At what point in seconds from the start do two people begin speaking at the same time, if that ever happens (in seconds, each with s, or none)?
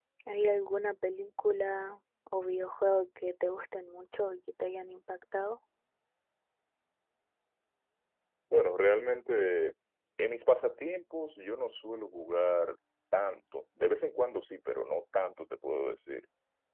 none